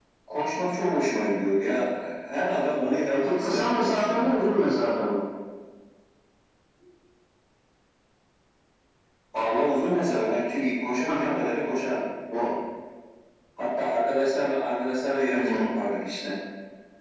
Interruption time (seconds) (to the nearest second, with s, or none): 3 s